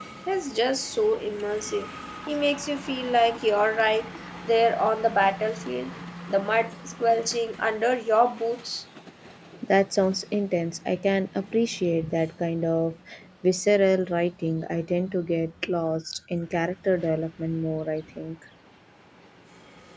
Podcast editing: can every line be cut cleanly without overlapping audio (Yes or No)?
Yes